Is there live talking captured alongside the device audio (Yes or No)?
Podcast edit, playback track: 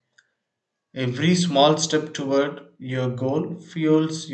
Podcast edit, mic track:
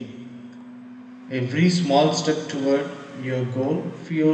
No